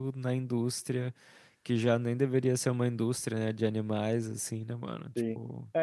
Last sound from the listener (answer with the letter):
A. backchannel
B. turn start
B